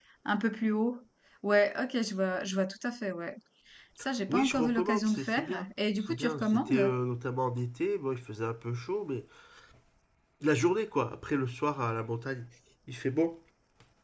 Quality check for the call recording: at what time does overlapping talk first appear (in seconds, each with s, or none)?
4.3 s